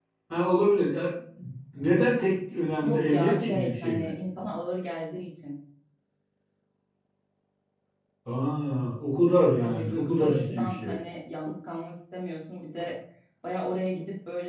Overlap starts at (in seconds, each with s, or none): 2.8 s